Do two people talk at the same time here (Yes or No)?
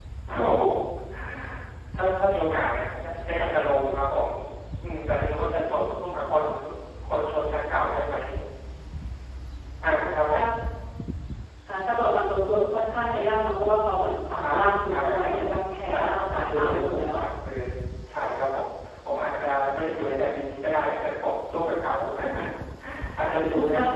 Yes